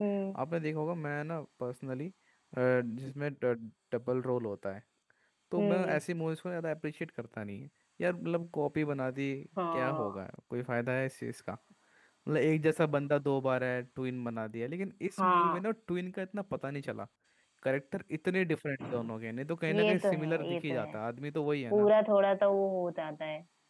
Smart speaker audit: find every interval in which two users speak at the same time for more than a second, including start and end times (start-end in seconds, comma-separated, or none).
19.7-20.9